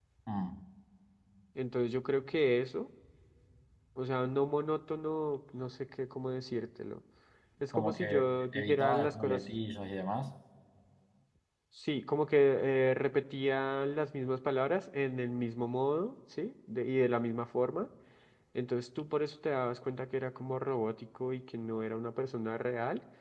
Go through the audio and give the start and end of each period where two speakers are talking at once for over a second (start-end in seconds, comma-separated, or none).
7.7-9.5